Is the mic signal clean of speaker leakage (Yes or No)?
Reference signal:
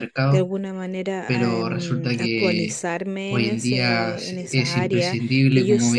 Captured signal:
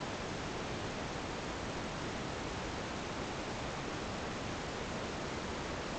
Yes